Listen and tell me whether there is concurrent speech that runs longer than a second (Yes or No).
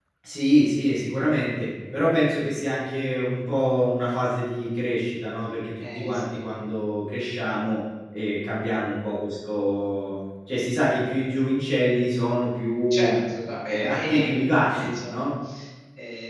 Yes